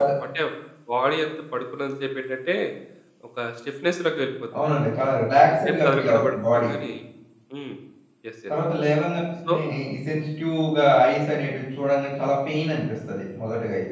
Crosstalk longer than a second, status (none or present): present